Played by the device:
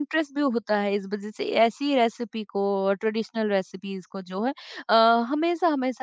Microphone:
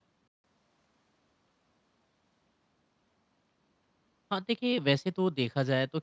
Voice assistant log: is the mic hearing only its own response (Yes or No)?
No